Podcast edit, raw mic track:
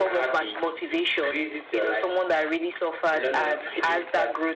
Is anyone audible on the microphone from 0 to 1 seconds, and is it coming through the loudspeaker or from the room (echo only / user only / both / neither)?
echo only